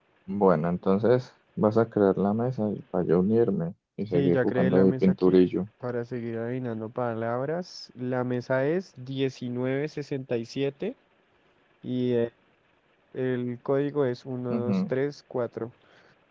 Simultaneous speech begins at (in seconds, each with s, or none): 4.1 s